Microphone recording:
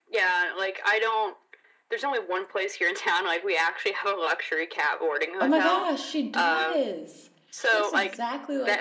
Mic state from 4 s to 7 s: both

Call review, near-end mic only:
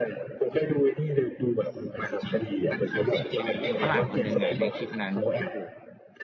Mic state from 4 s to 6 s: both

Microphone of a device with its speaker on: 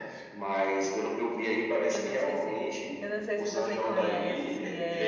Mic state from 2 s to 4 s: both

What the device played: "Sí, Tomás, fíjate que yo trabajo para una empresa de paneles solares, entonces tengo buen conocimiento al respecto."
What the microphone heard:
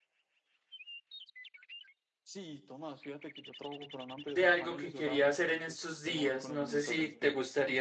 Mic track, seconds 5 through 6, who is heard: both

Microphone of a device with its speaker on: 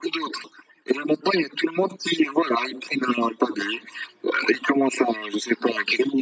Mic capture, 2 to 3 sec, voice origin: echo only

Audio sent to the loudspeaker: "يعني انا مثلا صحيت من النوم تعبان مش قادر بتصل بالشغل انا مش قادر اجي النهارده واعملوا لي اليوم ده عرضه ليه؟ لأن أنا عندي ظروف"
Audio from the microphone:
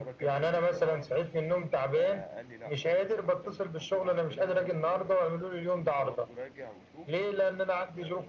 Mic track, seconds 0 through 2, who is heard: both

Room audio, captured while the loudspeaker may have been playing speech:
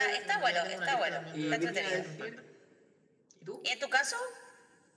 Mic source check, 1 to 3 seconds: both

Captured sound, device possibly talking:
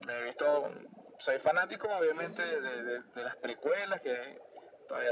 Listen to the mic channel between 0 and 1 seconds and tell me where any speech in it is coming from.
echo only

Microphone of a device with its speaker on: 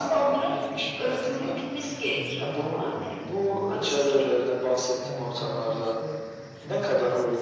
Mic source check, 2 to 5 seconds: both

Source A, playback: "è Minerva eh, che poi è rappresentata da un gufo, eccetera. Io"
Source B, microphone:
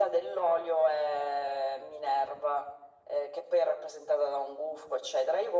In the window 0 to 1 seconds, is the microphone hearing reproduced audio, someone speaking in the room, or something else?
echo only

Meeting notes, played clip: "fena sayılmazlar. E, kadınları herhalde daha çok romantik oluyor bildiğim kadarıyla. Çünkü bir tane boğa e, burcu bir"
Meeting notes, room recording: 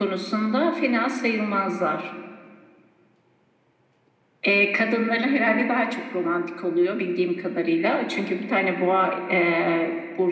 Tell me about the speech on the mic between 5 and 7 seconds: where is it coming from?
echo only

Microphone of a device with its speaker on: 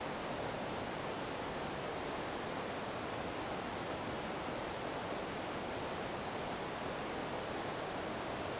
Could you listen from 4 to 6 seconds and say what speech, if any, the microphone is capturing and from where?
neither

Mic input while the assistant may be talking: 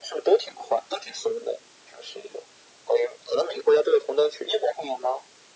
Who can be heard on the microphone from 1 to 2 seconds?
echo only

